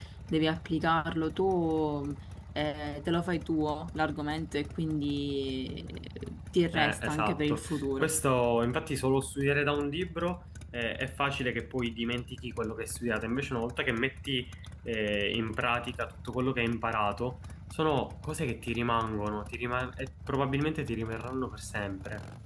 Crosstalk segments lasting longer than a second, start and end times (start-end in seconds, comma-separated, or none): 6.7-8.1